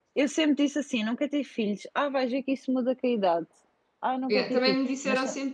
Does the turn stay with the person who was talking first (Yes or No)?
No